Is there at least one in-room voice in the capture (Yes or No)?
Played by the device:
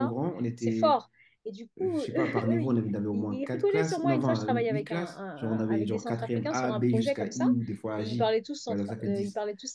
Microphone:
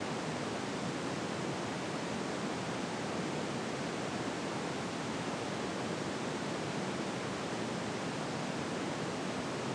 No